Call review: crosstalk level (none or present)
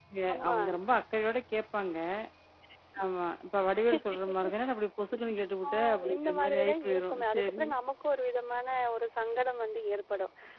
present